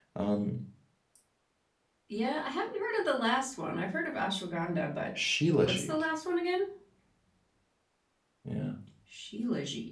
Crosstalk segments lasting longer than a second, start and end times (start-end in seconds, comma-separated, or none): none